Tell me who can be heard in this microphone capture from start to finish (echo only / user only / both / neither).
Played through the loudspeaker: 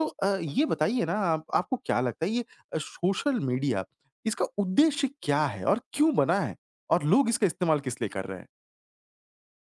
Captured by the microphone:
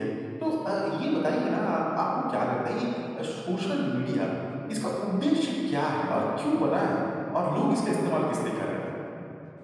echo only